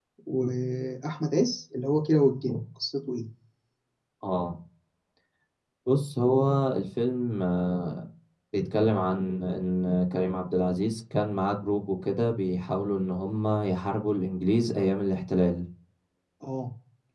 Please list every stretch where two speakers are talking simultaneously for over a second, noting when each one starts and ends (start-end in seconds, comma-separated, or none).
none